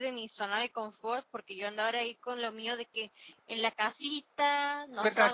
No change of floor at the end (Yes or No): No